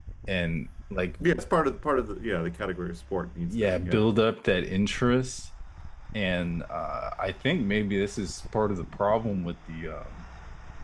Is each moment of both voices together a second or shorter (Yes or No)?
Yes